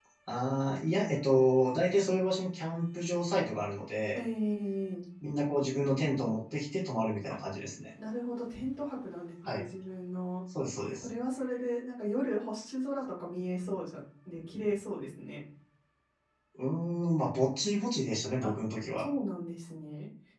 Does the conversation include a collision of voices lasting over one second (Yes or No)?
No